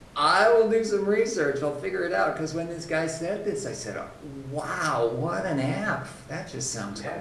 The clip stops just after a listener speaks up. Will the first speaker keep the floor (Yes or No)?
No